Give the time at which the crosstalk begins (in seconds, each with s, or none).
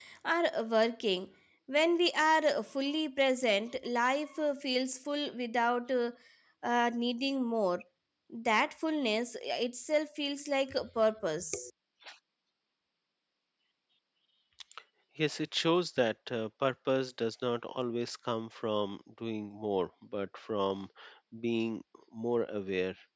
none